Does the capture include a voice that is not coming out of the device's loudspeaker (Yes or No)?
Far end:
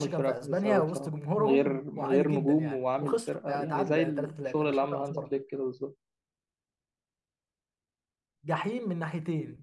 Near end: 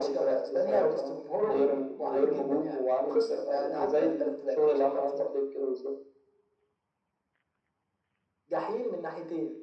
No